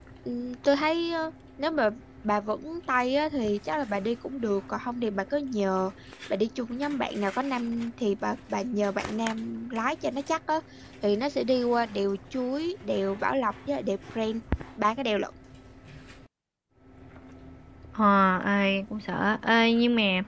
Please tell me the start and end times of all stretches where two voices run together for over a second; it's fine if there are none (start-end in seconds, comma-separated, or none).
none